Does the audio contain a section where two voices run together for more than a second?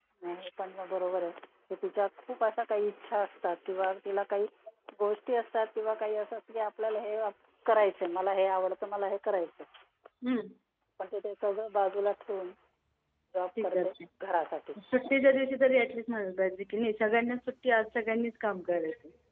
No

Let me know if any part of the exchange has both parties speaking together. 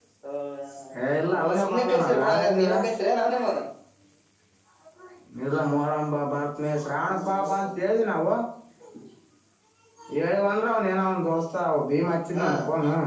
Yes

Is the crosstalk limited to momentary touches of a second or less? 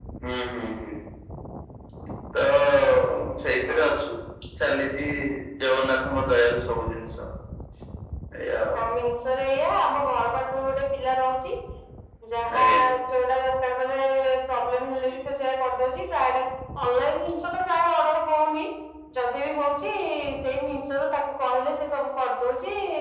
Yes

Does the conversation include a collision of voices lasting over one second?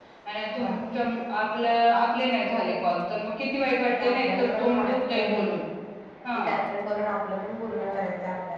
Yes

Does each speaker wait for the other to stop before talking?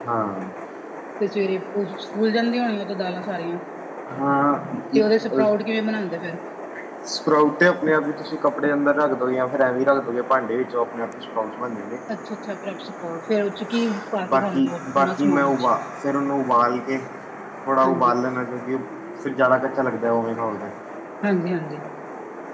No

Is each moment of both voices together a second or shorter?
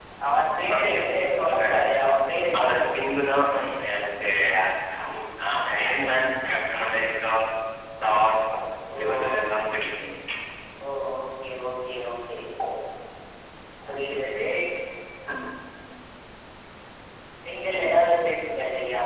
No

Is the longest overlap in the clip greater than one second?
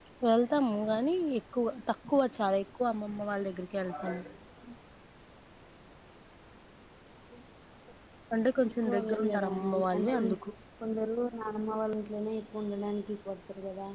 Yes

